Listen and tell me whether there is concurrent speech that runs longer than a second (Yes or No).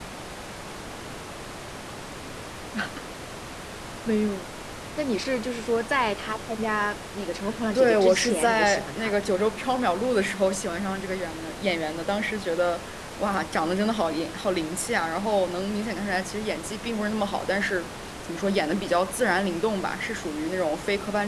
Yes